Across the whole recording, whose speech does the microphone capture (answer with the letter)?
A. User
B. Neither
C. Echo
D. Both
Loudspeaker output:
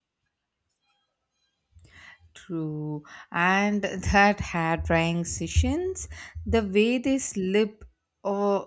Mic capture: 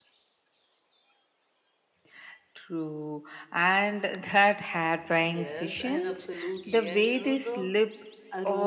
D